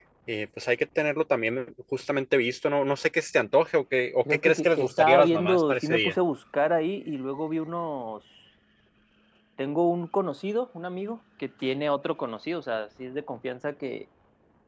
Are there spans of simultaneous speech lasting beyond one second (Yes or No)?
Yes